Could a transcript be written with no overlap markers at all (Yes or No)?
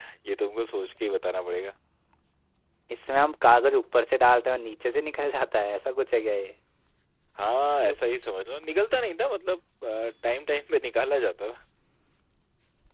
Yes